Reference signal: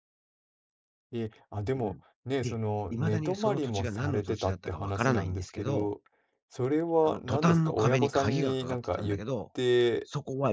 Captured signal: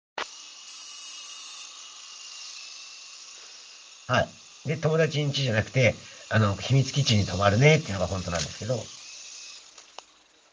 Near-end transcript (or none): はい。で、友達ん家じゃなくて、あの、秘密基地に泊まるねっていうのが本当なんですけど、